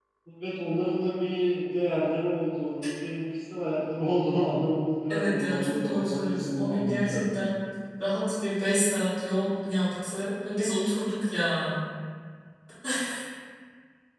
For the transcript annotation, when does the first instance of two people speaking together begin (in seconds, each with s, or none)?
5.1 s